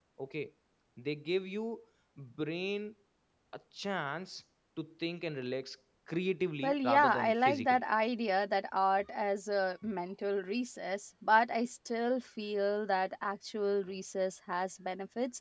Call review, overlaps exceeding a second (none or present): present